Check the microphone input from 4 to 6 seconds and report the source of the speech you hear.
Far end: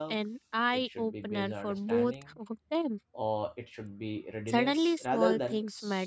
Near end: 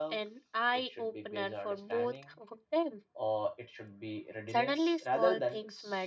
echo only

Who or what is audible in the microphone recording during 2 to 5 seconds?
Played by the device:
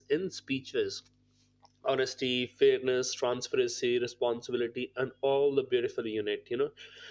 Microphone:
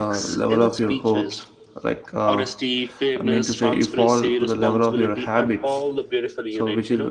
both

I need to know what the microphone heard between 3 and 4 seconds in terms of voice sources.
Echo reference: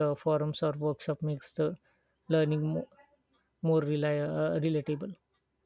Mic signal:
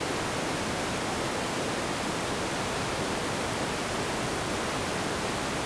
neither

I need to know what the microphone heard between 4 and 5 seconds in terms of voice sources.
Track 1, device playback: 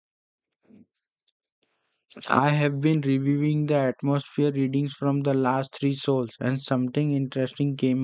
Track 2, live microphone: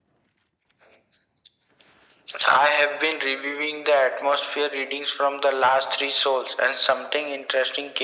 echo only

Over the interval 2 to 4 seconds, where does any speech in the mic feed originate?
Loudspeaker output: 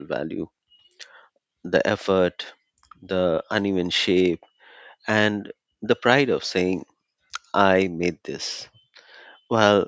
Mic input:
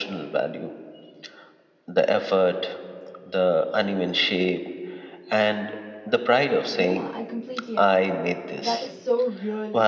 echo only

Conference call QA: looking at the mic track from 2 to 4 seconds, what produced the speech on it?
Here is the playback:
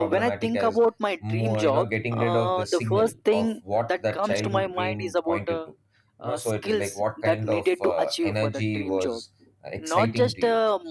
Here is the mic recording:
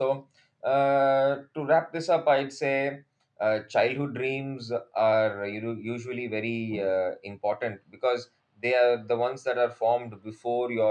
user only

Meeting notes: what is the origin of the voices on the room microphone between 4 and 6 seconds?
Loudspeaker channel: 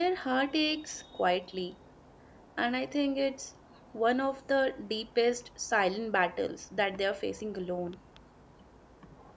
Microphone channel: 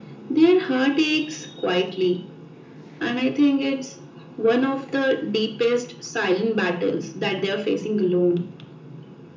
echo only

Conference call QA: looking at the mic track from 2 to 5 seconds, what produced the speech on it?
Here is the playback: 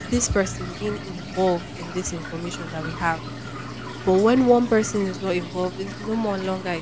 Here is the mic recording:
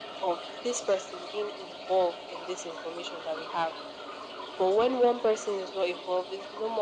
echo only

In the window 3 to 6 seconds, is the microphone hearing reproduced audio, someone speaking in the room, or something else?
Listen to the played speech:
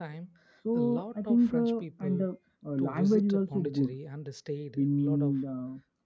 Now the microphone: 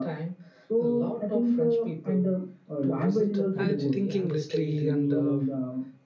both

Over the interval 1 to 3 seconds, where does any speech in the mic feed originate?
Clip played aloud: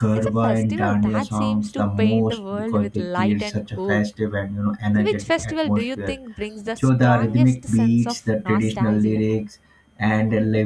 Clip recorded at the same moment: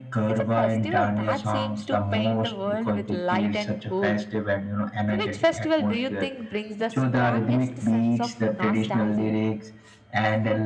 echo only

